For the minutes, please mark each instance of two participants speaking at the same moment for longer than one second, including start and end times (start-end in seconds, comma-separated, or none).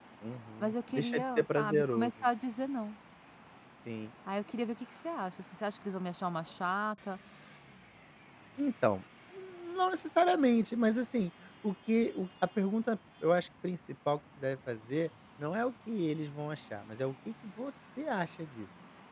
0.6-2.1